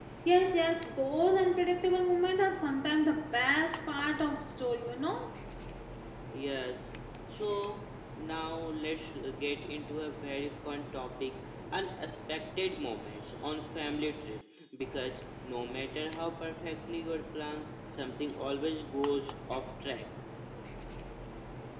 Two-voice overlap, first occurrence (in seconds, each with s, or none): none